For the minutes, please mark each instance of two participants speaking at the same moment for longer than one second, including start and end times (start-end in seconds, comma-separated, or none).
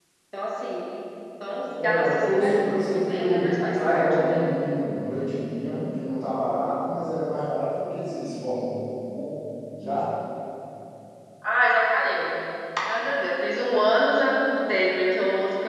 1.8-4.5